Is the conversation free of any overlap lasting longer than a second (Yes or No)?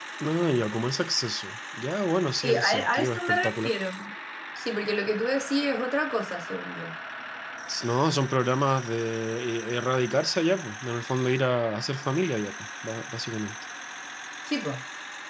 No